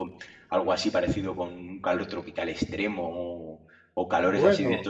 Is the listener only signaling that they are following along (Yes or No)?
Yes